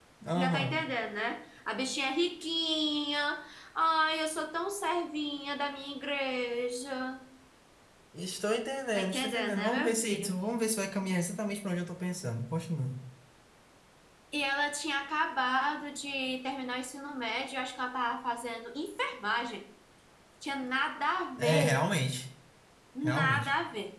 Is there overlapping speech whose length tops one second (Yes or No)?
Yes